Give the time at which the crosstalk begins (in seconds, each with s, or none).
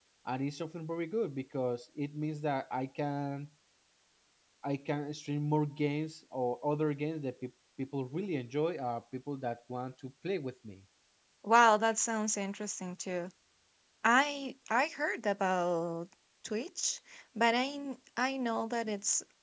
none